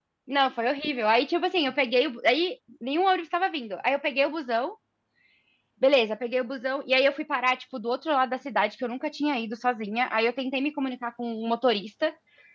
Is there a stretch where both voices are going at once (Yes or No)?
No